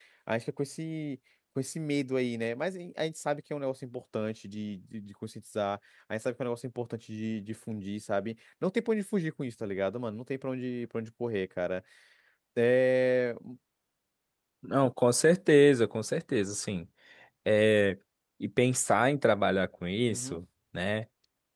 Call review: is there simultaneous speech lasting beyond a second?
No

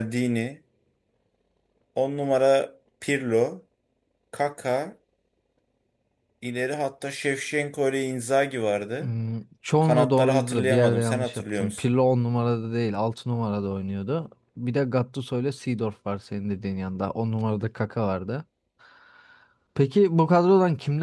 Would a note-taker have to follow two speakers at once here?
Yes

